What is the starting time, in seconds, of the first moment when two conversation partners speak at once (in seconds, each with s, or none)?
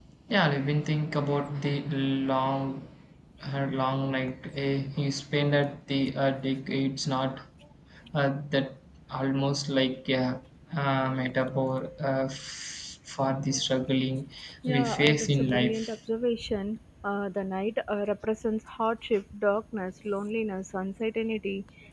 14.6 s